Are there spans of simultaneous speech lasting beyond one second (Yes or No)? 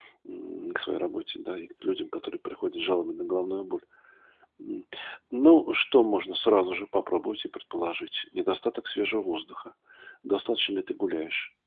No